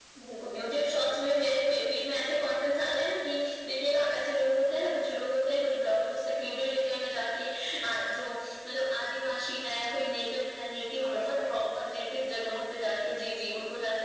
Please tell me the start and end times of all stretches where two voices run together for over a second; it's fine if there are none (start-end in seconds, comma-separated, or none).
11.0-12.6